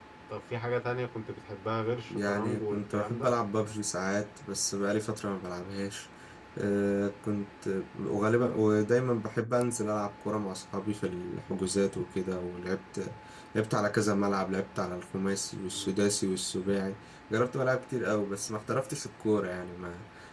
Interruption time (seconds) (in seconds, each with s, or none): 2.1 s